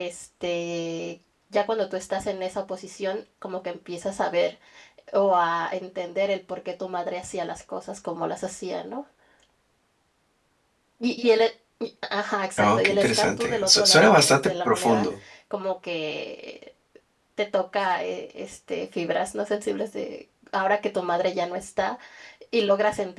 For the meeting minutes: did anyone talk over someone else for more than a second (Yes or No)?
Yes